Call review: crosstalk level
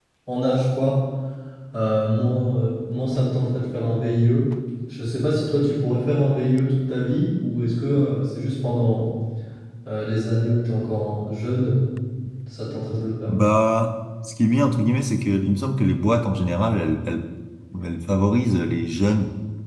none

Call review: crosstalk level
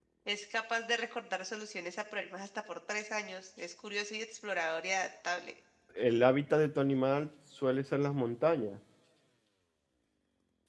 none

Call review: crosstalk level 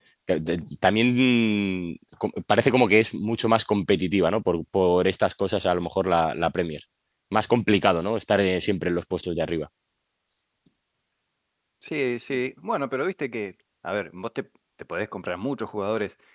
none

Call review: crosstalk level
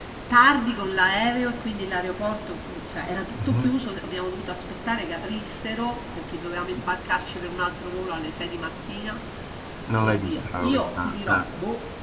present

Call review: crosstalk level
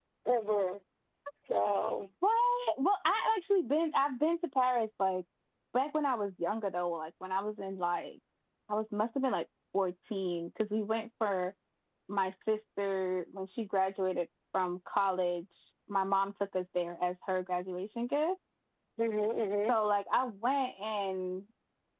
none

